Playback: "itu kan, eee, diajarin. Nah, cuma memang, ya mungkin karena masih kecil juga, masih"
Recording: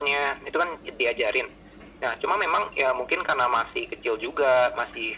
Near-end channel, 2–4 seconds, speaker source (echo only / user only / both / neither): echo only